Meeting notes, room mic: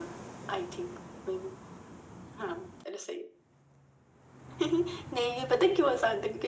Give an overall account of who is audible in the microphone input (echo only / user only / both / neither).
echo only